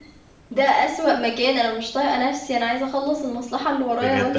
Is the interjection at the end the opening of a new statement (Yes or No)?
Yes